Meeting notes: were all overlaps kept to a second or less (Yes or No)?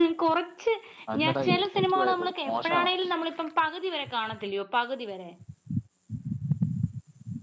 No